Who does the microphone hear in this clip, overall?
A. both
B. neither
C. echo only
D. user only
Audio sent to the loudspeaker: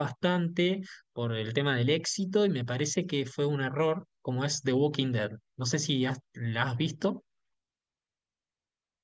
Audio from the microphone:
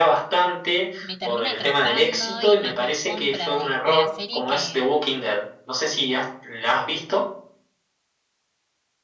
A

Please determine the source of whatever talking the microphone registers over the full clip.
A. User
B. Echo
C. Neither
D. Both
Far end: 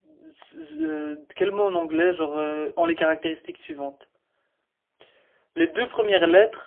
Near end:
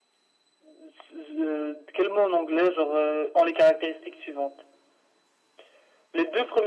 B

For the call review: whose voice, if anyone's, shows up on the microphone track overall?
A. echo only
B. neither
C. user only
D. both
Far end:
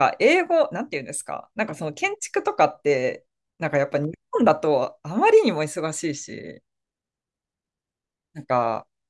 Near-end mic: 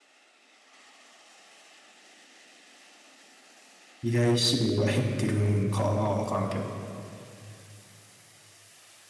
C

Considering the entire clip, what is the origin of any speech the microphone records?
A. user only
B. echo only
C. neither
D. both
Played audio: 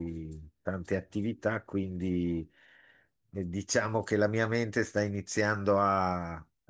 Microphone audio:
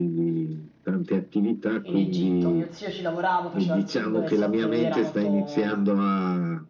D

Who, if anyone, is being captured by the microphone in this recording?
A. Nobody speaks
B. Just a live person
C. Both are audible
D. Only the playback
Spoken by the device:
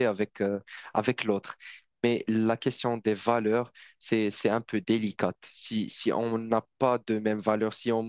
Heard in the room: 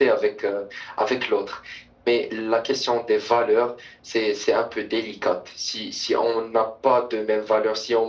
D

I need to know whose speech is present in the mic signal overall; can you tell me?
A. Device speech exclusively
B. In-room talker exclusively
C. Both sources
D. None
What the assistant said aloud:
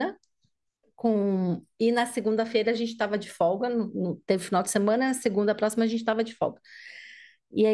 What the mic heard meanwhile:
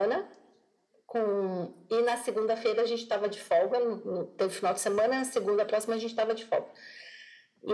A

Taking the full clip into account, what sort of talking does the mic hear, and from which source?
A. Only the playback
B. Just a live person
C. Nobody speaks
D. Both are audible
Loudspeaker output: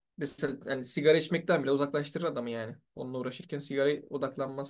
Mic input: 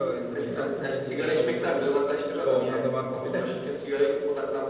D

